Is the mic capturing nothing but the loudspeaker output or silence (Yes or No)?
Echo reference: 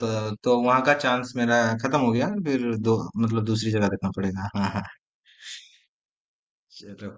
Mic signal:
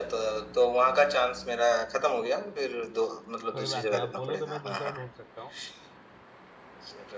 No